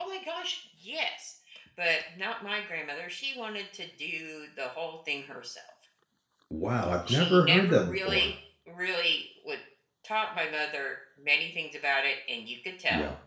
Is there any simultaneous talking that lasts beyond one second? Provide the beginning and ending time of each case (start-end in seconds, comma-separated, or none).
7.1-8.3